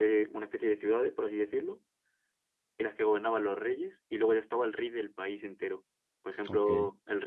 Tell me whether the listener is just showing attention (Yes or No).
Yes